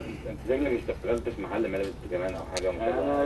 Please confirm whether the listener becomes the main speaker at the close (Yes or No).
Yes